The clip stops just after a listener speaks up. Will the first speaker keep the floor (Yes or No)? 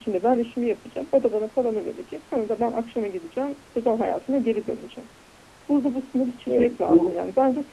Yes